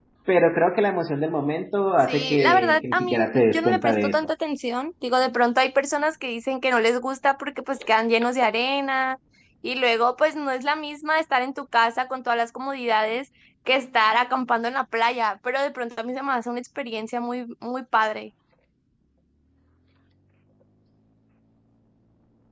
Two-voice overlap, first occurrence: 2 s

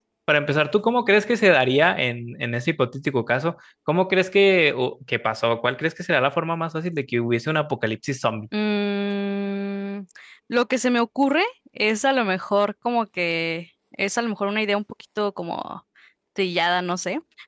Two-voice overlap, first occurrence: none

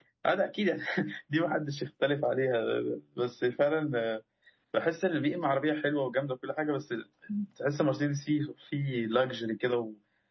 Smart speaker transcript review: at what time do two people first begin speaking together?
none

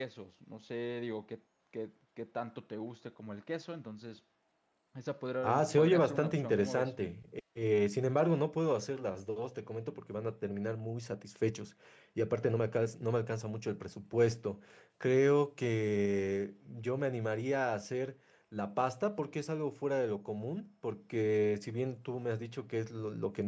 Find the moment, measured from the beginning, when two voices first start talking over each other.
5 s

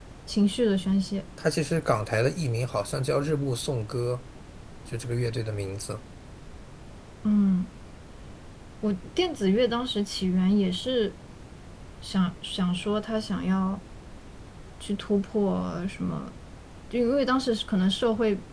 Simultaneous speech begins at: none

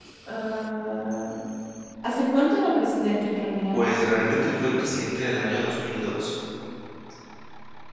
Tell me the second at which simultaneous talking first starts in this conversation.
none

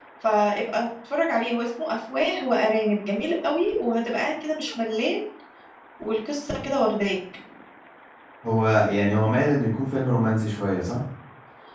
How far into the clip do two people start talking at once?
none

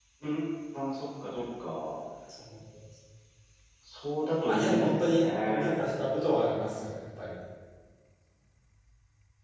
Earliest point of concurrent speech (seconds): 4 s

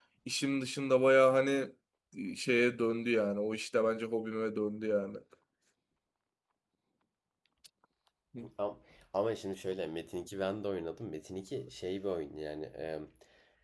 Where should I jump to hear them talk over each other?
none

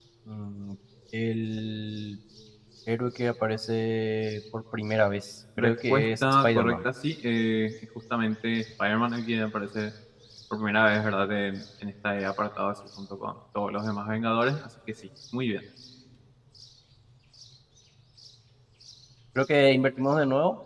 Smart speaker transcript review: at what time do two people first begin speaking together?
6 s

